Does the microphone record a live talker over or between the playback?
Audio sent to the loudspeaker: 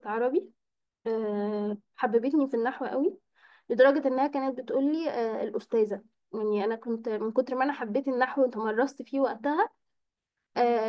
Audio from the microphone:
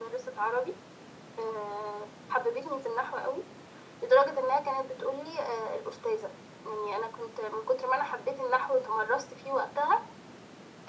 No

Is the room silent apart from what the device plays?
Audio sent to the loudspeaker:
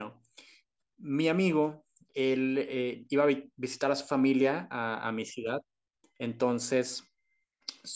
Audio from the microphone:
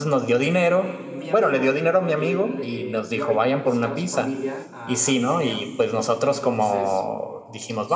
No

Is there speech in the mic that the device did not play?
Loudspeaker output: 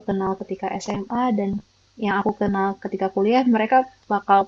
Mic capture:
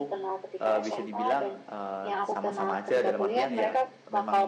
Yes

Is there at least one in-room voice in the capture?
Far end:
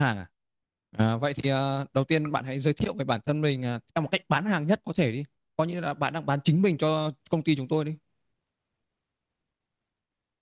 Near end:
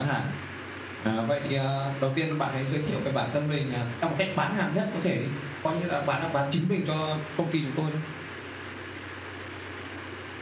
No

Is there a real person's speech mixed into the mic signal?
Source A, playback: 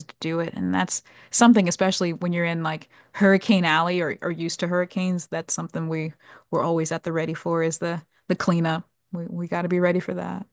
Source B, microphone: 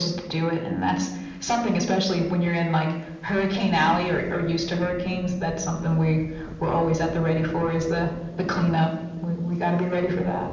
No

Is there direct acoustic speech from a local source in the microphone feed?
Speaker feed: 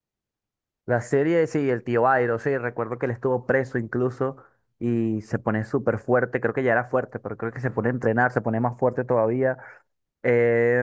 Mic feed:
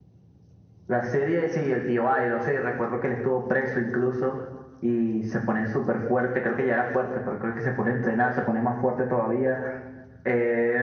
No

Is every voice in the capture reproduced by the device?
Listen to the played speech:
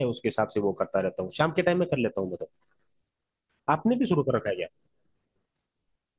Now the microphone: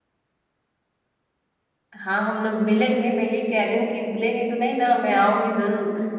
No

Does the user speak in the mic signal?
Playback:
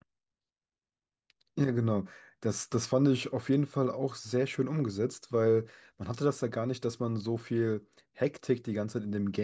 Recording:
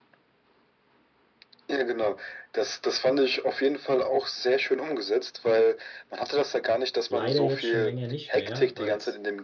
Yes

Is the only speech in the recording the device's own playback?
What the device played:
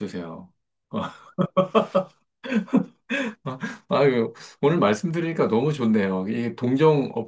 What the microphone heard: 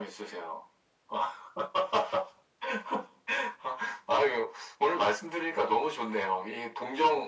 Yes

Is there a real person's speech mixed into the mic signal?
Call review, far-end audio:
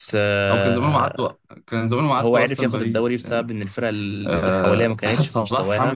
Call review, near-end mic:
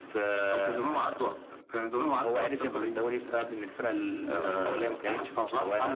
No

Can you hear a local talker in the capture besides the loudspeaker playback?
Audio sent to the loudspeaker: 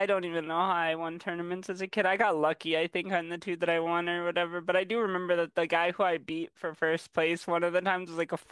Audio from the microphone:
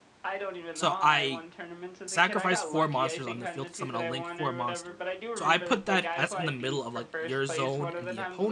Yes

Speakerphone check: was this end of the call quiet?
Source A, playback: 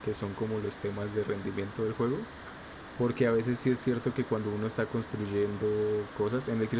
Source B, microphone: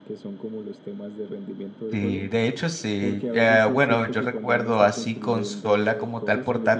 No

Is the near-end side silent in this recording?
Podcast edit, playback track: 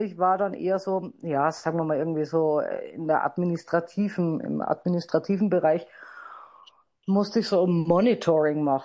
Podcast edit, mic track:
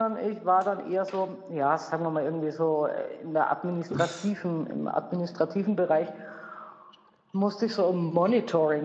No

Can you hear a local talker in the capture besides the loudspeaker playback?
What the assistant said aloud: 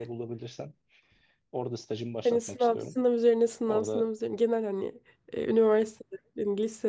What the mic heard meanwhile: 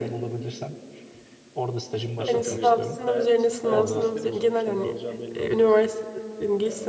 Yes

